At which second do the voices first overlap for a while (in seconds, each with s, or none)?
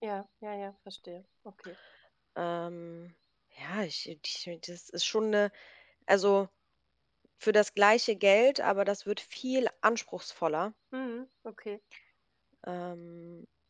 none